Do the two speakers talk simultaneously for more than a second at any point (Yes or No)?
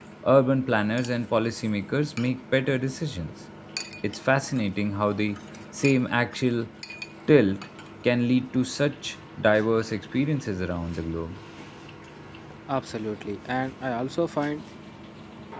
No